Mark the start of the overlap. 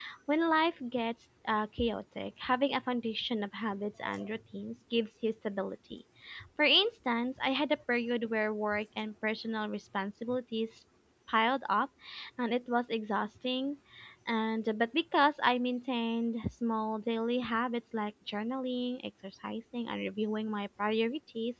none

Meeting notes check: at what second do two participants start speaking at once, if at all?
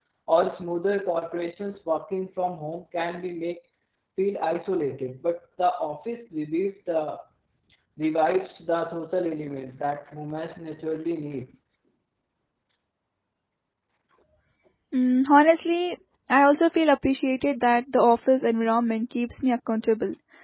none

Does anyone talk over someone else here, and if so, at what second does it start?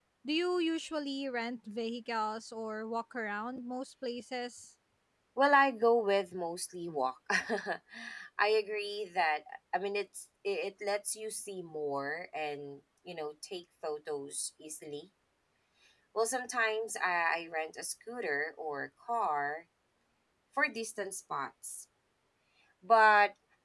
none

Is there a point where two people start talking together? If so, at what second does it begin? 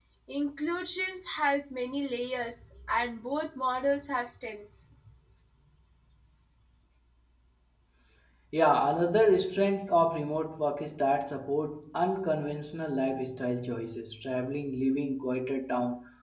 none

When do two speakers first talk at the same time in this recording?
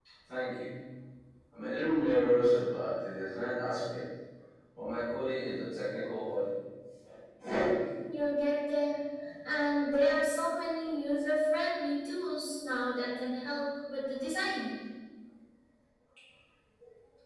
none

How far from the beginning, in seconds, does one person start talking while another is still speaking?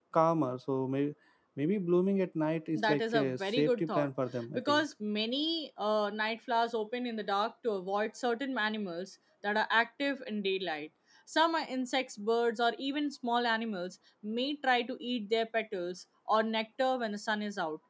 2.8 s

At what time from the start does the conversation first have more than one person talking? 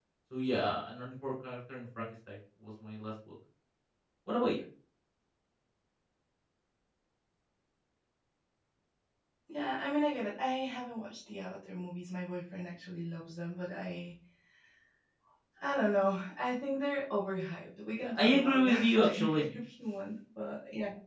18.0 s

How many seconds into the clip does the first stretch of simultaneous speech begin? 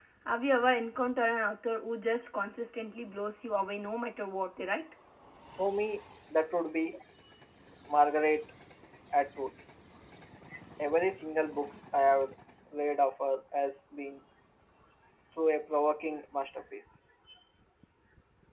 none

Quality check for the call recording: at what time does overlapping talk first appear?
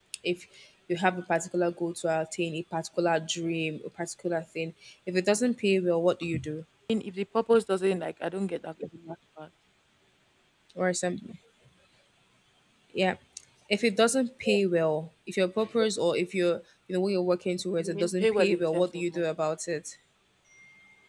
17.8 s

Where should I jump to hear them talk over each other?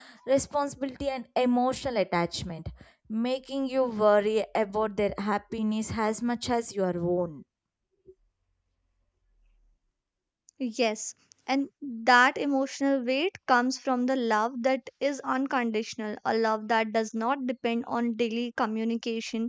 none

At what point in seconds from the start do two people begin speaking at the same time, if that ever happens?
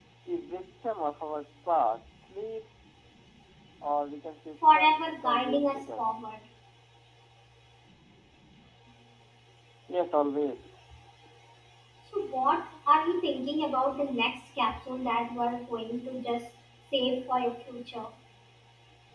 4.6 s

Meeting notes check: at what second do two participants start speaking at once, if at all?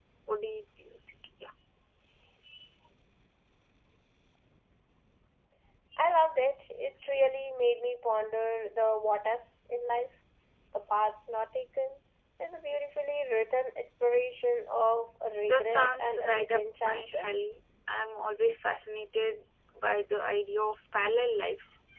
15.5 s

